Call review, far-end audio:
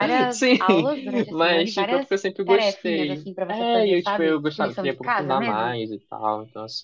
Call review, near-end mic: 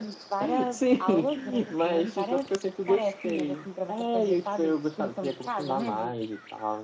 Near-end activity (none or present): none